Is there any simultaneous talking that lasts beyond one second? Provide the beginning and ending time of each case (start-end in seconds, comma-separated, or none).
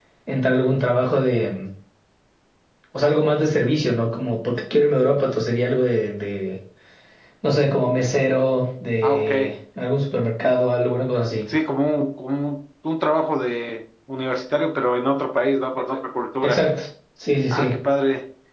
none